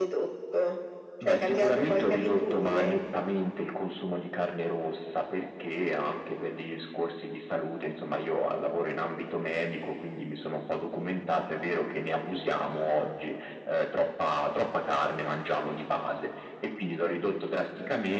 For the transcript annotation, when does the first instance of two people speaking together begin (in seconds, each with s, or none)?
1.2 s